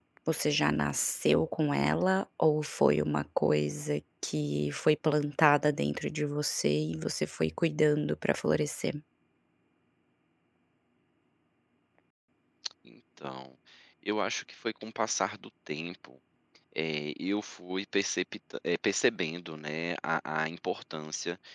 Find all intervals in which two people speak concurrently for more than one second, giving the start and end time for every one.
none

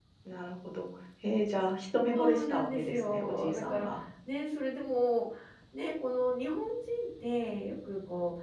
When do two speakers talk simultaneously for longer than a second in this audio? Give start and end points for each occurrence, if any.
2.1-4.0

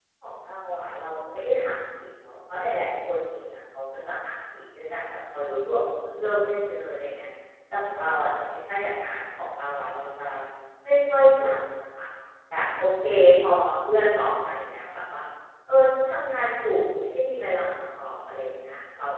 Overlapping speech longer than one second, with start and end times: none

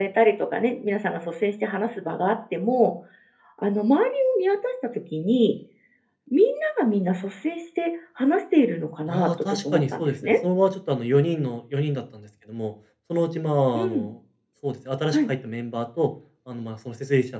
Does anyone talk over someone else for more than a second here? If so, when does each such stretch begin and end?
9.1-10.3

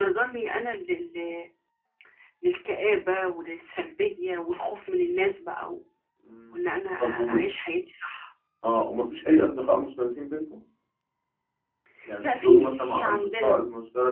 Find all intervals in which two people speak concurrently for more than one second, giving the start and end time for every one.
12.2-13.6

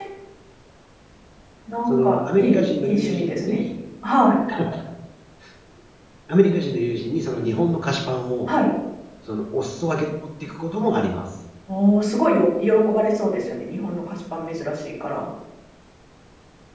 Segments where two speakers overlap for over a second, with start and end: 1.9-3.6

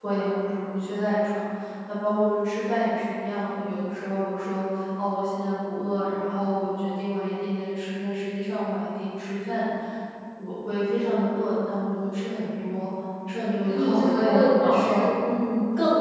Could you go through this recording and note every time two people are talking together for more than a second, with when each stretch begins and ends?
13.7-15.0

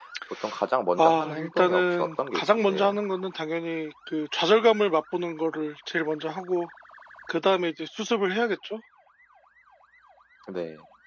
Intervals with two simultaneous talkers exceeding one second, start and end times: 1.0-3.0

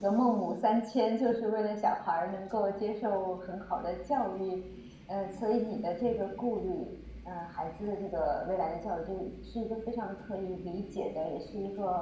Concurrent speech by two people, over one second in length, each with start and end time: none

